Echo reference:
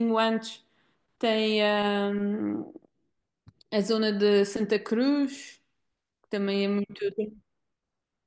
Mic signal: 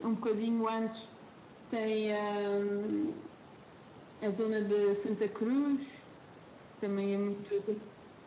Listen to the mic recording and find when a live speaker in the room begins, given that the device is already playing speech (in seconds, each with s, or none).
none